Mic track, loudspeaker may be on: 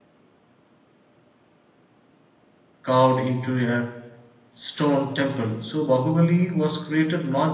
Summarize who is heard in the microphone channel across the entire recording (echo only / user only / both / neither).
user only